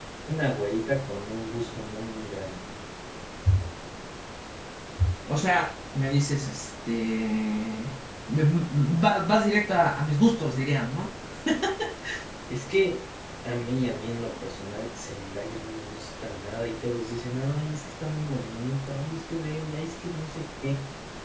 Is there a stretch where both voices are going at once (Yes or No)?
No